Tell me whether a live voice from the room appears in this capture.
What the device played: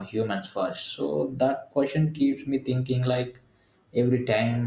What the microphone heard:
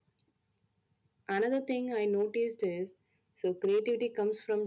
Yes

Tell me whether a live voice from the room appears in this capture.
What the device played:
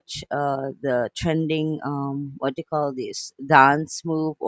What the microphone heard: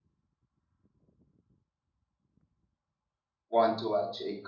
Yes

